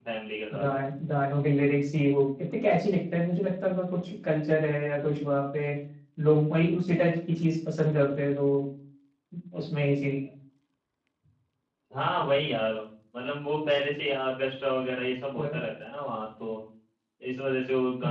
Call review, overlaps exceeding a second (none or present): none